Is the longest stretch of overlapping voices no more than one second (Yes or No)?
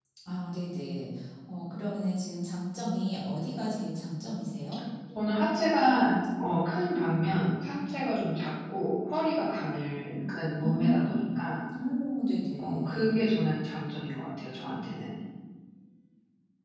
Yes